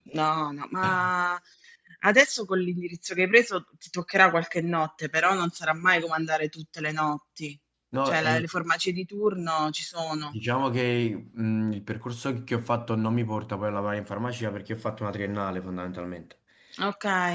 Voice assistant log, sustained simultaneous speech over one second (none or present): none